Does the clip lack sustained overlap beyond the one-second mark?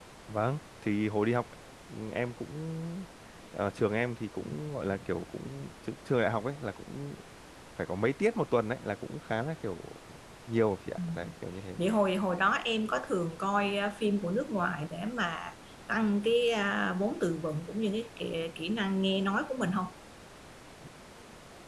Yes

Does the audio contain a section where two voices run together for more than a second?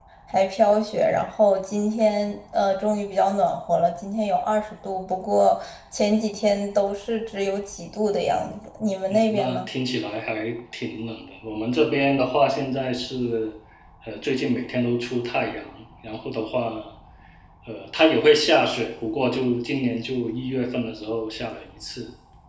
No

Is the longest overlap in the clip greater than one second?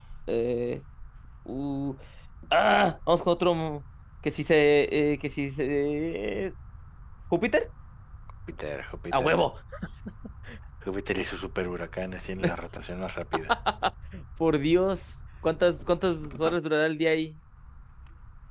No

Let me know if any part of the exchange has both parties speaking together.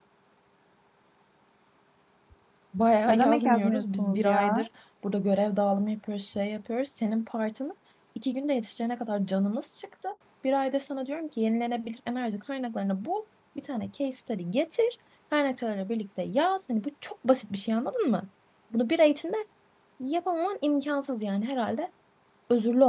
Yes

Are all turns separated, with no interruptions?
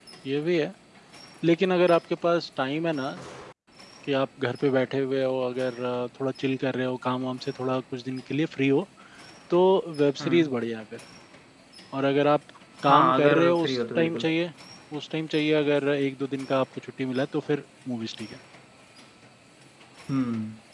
No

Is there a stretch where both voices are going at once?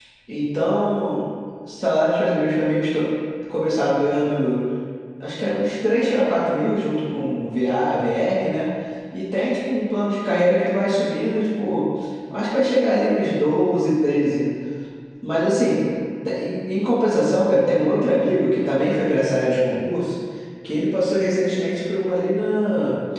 No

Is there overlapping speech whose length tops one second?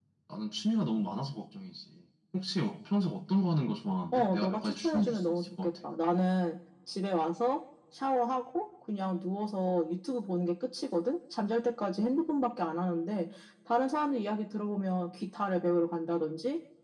Yes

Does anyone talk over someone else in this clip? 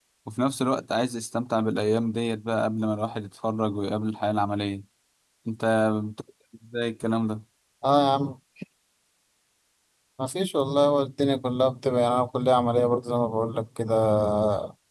No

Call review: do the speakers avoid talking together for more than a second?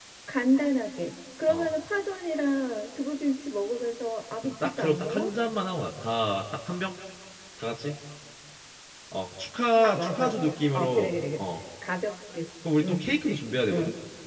No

